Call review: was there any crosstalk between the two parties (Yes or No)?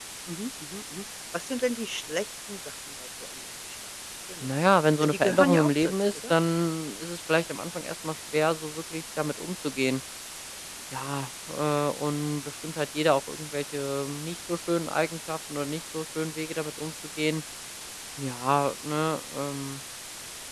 Yes